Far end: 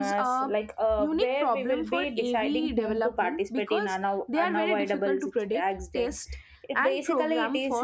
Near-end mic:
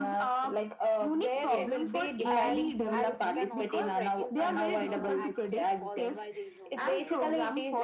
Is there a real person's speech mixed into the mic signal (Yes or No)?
Yes